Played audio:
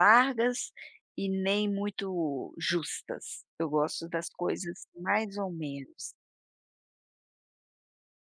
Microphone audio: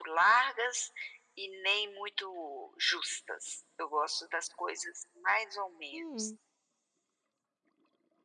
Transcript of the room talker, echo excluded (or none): Hum.